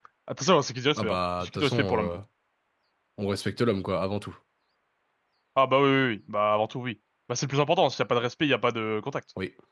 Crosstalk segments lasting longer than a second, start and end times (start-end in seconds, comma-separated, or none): 1.0-2.2